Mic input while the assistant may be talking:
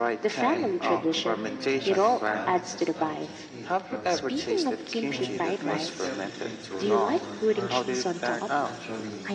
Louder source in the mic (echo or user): echo